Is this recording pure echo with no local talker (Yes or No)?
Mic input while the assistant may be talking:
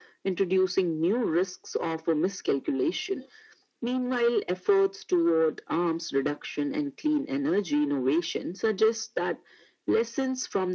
Yes